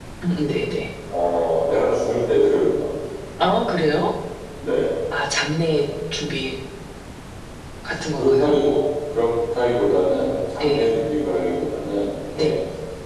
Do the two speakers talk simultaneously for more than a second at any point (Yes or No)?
No